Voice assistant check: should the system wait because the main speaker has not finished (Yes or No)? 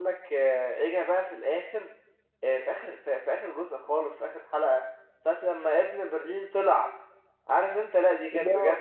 Yes